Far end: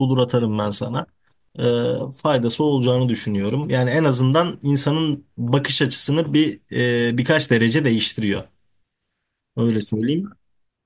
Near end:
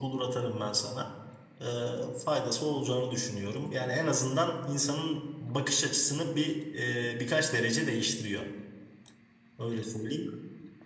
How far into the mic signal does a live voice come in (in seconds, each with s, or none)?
none